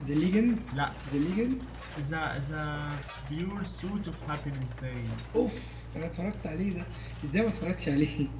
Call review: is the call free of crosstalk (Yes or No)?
Yes